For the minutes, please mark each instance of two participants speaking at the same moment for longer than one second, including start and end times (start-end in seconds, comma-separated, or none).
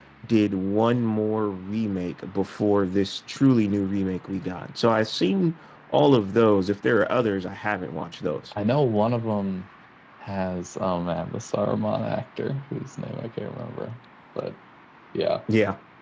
none